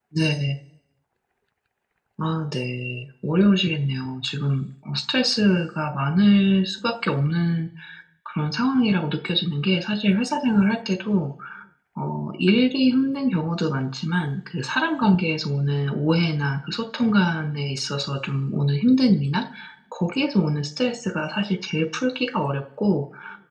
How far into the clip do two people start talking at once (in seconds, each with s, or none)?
none